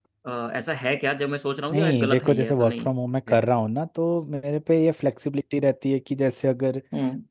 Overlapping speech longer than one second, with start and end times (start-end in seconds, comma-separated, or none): 1.7-2.9